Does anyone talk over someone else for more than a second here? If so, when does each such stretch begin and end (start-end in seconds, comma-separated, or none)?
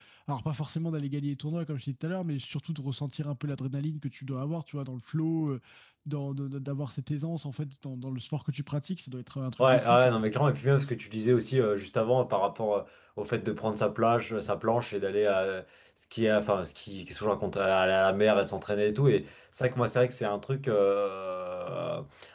none